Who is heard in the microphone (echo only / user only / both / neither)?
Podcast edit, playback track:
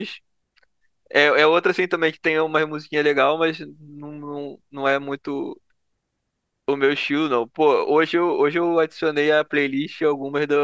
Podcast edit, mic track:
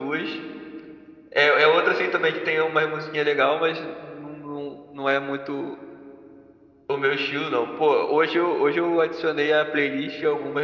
echo only